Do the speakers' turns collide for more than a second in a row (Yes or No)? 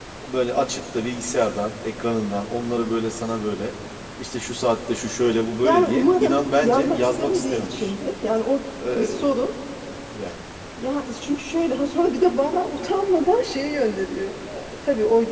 Yes